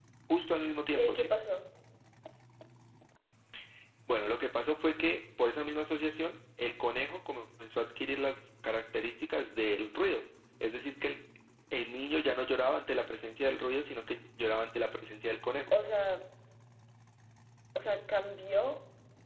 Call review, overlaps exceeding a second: none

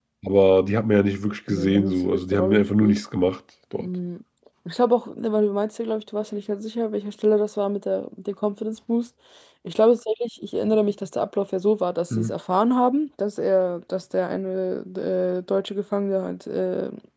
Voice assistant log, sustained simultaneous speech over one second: present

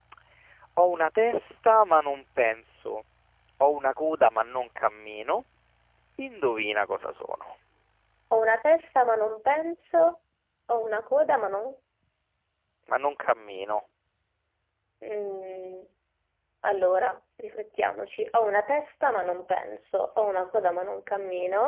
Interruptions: none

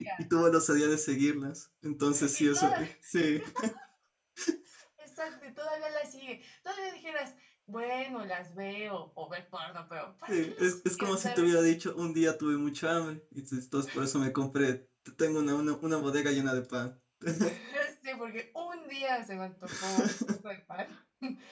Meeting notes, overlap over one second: present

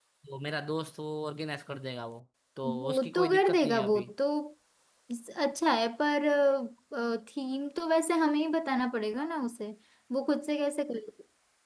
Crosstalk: present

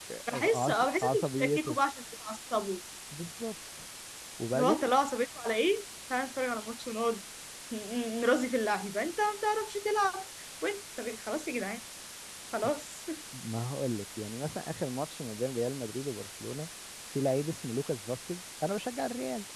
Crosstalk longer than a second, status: present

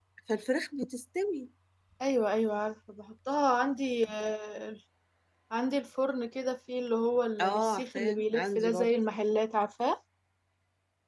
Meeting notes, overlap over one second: present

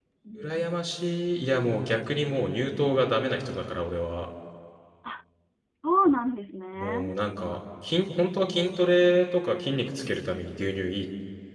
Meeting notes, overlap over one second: none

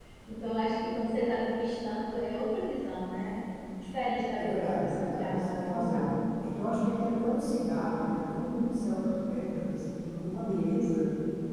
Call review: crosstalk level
present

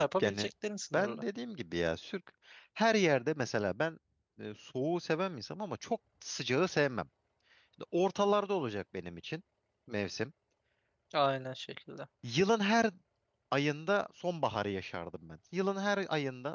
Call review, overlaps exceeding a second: none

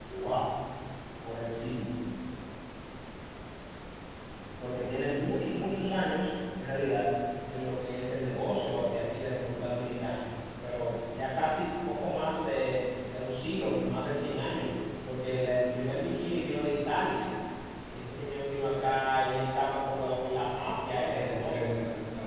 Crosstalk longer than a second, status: none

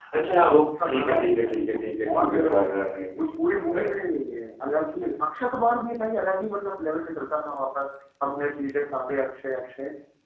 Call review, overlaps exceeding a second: present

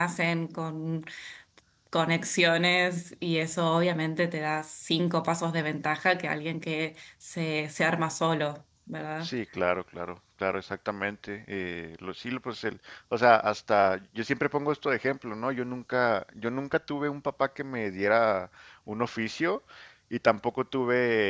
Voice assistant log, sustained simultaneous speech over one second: none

